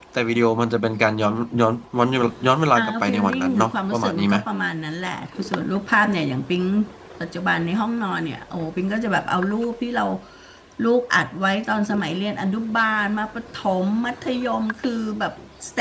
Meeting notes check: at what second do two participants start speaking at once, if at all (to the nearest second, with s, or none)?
3 s